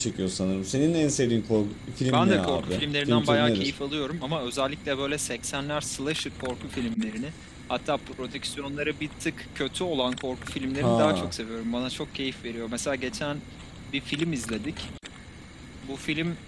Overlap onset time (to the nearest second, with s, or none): 2 s